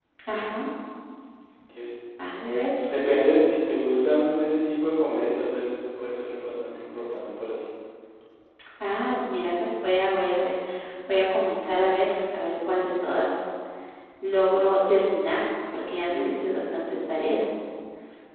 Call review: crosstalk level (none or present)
none